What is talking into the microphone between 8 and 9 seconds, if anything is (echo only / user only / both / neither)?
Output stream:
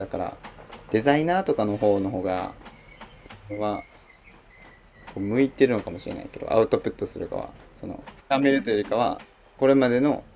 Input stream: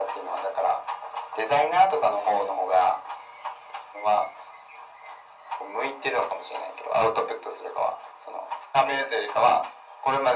echo only